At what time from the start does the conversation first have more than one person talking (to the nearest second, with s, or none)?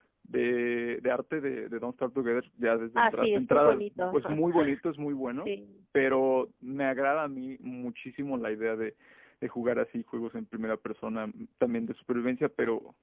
3 s